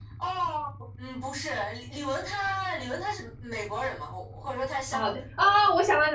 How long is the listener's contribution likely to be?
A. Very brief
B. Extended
B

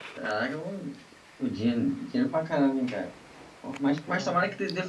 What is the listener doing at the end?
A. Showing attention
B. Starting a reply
A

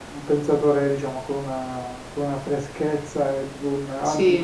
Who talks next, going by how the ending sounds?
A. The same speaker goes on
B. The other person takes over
A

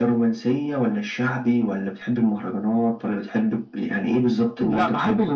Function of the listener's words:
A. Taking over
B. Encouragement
A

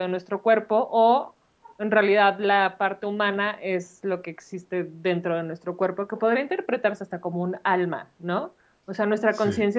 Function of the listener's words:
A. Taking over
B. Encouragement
B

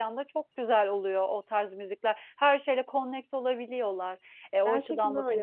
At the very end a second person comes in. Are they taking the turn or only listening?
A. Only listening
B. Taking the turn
B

